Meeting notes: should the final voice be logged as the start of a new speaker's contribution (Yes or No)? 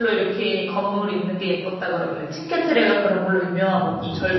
No